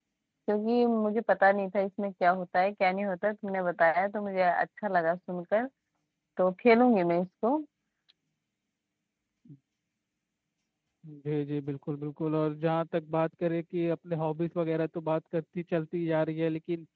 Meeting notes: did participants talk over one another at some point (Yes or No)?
No